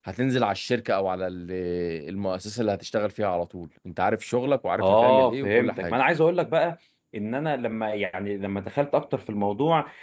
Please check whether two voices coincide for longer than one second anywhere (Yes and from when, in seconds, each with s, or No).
Yes, from 4.8 s